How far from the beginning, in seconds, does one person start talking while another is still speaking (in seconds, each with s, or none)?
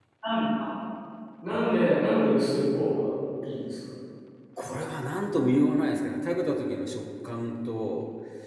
none